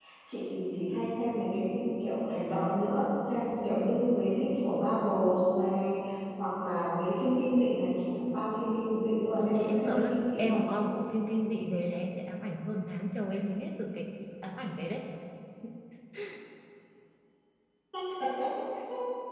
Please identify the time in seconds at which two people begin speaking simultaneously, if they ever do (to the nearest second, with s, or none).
9 s